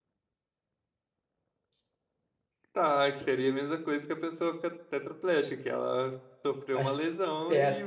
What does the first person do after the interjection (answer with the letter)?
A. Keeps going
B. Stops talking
B